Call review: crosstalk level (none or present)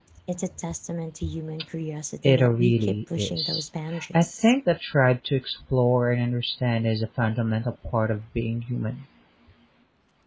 present